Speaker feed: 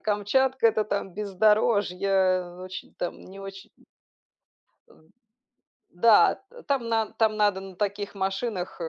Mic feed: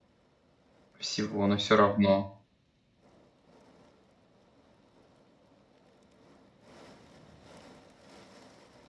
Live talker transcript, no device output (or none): всего, но всё равно.